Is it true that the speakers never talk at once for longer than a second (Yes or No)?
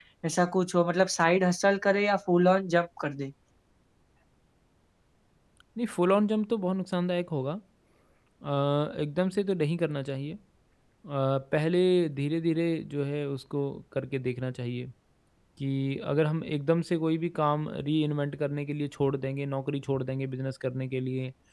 Yes